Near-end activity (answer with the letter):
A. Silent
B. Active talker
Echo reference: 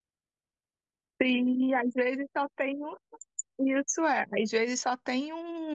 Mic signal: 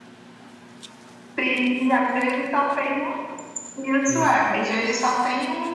B